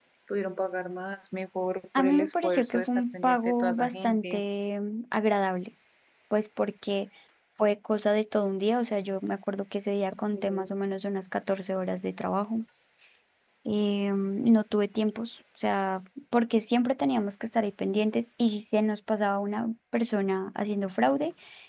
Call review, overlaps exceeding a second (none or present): present